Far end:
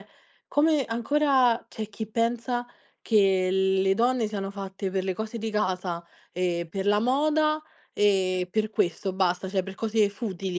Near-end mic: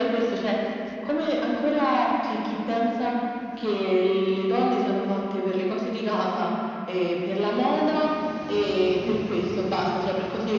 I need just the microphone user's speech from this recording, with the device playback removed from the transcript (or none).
Mh-mh.